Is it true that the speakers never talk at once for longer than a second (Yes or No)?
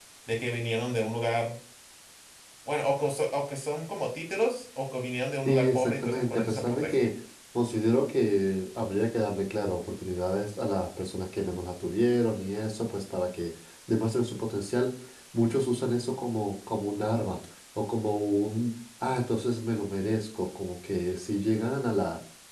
No